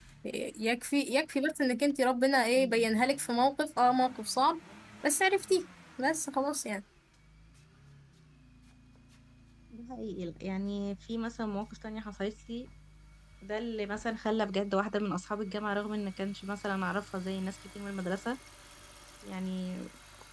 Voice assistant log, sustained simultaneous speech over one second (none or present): none